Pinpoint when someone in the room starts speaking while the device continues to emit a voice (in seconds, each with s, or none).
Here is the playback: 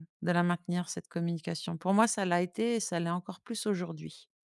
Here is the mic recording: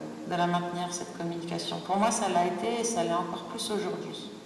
none